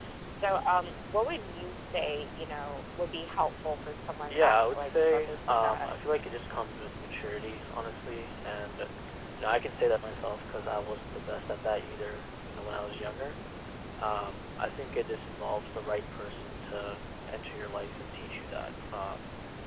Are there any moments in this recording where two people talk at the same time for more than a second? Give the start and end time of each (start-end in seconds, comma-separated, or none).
4.3-5.9